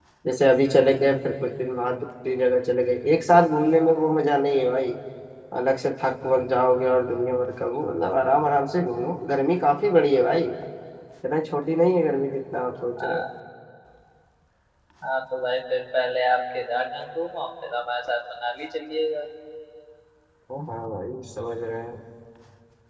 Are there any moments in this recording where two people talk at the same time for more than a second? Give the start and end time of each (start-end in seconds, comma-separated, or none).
none